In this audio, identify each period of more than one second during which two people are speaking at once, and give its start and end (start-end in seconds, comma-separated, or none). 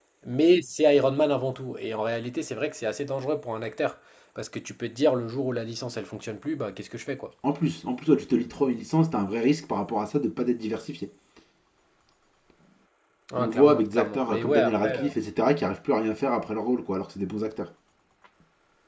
13.4-15.0